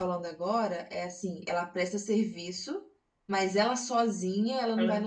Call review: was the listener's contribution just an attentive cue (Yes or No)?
Yes